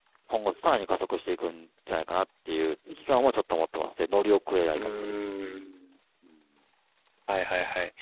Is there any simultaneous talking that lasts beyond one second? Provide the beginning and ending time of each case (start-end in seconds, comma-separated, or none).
none